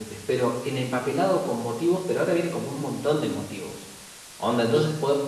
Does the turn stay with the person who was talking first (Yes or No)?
Yes